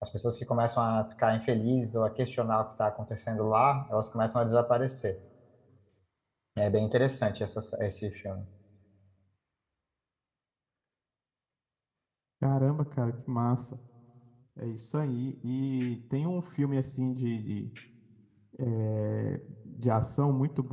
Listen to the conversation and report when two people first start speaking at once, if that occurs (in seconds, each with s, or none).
none